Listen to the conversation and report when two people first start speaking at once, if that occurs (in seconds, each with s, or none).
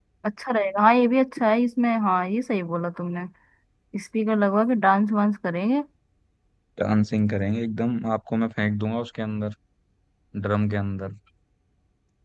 none